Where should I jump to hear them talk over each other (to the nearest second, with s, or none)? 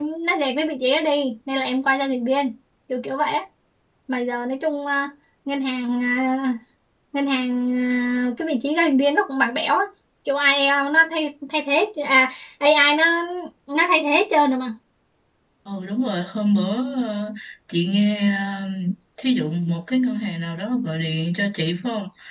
none